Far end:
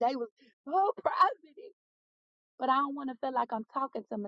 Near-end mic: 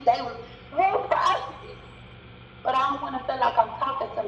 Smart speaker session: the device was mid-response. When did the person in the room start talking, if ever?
none

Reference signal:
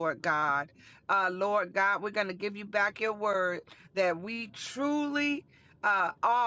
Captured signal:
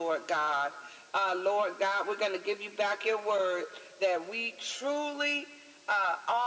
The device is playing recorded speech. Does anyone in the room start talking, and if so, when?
none

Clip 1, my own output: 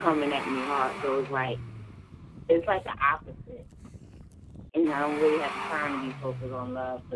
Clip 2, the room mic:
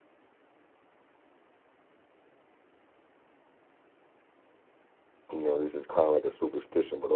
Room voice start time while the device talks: 5.3 s

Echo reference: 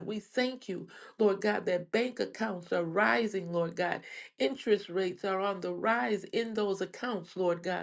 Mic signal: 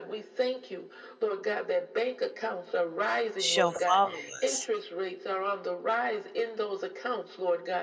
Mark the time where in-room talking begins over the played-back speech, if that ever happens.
3.4 s

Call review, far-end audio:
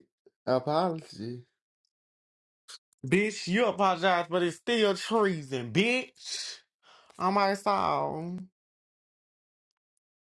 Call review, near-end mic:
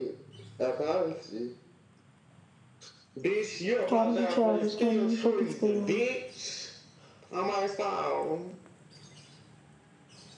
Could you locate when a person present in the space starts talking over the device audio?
3.9 s

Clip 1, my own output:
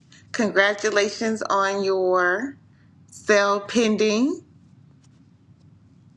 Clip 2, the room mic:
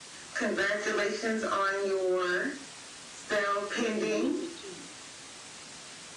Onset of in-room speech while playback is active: 3.7 s

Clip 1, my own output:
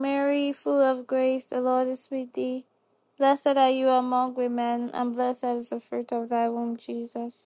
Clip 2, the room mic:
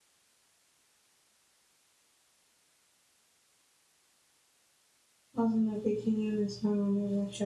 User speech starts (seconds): 5.4 s

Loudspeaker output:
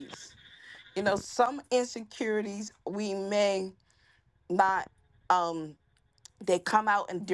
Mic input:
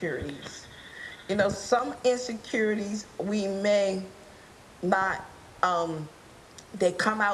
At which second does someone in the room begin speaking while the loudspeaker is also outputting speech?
none

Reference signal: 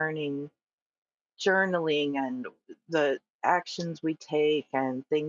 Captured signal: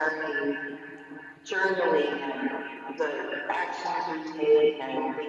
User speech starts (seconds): none

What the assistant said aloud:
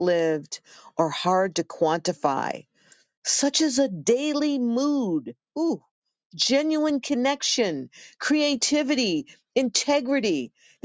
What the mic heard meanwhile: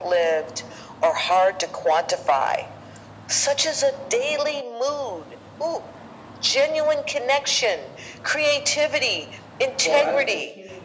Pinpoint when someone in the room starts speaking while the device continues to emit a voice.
9.8 s

